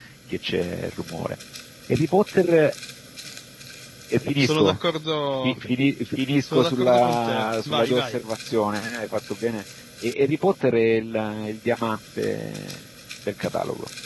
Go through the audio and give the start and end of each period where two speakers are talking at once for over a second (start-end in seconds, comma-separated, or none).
6.5-8.2